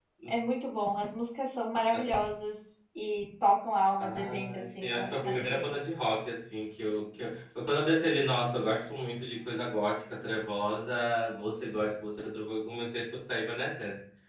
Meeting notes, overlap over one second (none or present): present